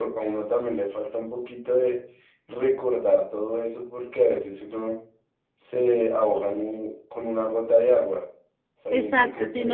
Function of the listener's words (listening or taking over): taking over